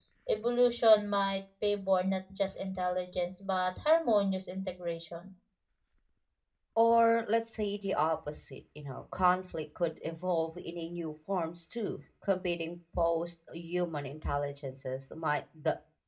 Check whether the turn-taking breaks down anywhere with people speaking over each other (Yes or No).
No